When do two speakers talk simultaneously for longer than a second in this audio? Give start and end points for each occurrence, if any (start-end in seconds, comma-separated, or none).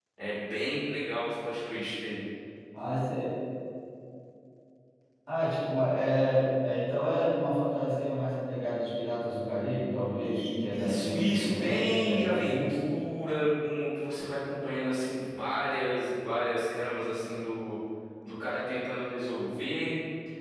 10.2-12.9